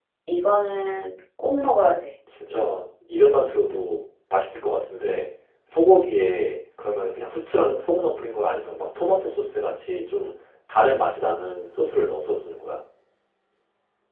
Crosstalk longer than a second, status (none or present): none